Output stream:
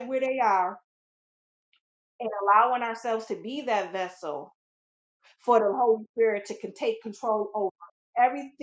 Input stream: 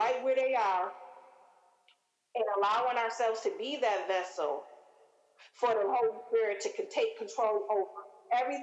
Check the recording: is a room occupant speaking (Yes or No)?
No